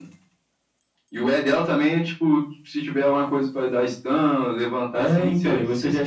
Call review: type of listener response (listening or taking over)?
taking over